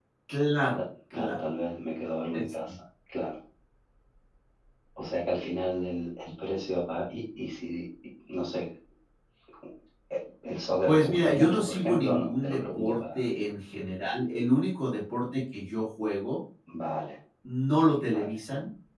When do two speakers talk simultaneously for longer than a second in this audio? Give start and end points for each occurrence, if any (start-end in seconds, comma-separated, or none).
10.8-13.2